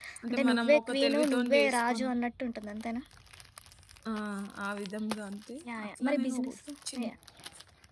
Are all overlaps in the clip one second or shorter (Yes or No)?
No